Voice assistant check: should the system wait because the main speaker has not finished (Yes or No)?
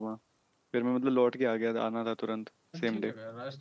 No